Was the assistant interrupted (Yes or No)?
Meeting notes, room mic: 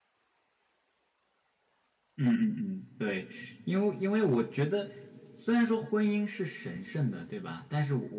Yes